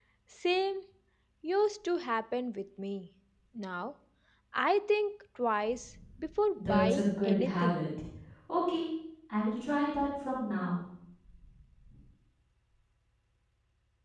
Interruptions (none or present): present